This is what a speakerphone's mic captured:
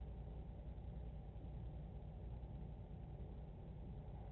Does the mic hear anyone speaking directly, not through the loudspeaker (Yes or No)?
No